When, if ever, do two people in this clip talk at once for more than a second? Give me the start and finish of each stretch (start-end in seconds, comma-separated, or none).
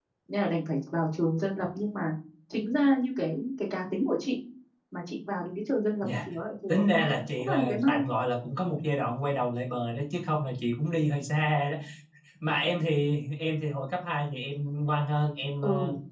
6.7-8.0